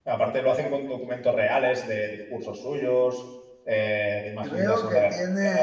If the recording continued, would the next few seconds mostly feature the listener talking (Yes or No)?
Yes